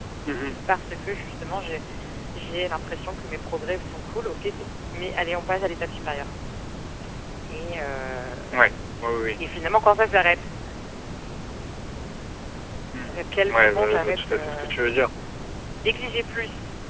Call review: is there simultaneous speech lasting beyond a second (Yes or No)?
Yes